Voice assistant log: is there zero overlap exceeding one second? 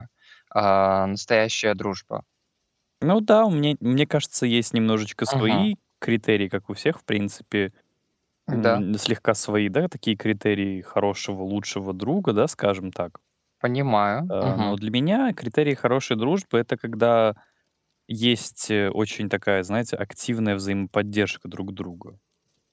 Yes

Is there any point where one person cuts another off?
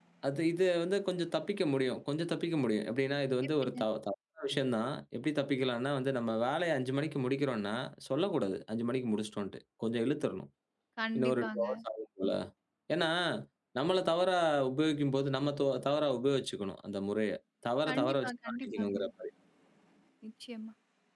Yes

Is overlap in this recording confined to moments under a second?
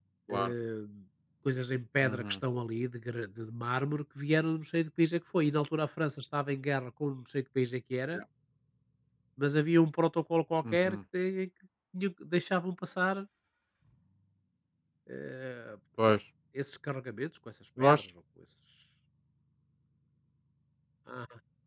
Yes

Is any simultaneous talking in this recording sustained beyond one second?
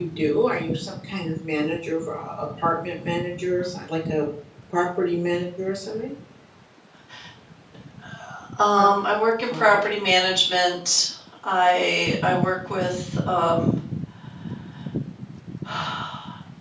No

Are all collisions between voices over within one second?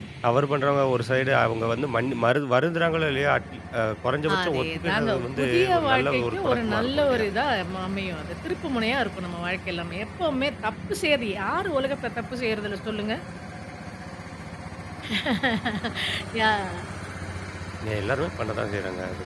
No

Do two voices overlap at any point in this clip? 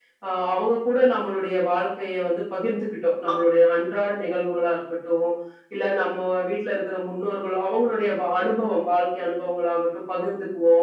No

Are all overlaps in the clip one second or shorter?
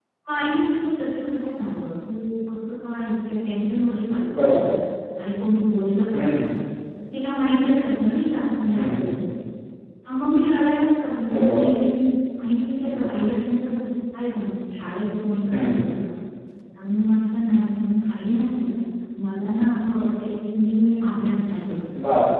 Yes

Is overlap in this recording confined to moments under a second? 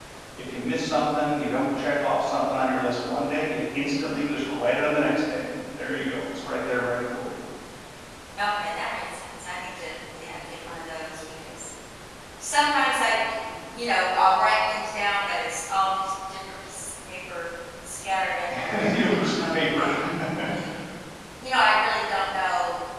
No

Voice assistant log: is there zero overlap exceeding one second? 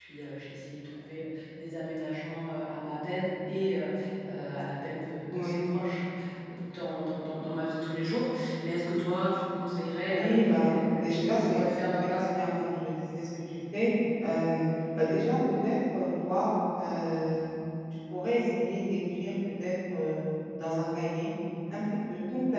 No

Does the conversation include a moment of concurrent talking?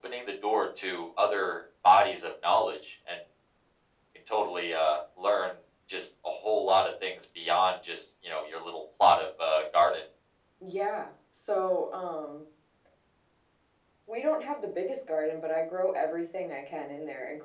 No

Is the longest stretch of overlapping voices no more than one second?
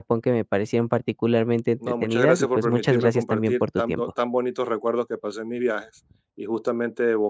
No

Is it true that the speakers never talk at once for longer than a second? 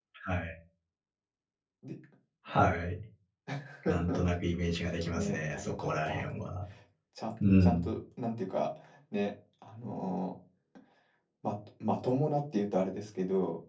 No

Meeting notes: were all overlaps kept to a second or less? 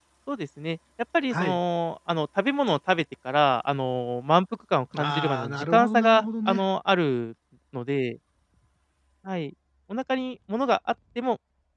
No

